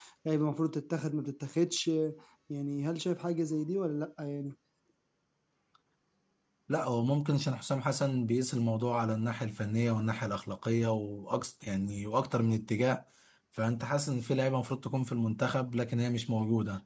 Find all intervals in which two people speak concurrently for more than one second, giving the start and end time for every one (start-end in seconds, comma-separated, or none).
none